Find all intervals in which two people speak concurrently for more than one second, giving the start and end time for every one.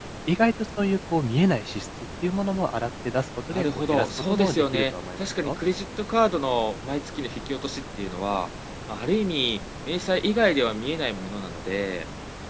3.5-5.6

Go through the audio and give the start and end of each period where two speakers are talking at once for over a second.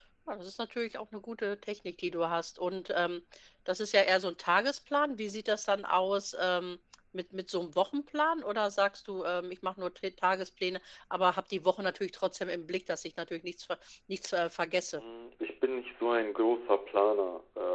none

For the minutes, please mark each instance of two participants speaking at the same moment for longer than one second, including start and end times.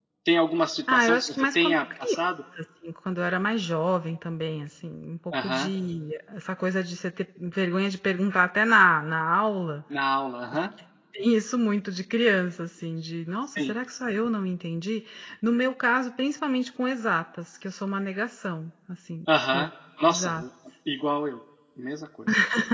0.9-2.1

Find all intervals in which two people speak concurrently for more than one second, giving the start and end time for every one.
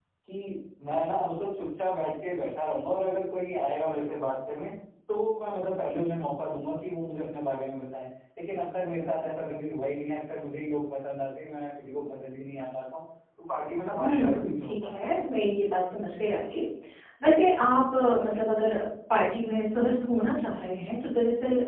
14.0-15.2

